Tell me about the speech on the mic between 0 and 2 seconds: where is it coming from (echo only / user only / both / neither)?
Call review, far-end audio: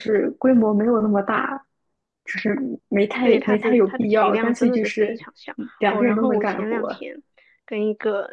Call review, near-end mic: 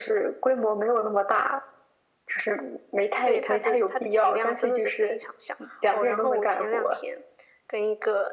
echo only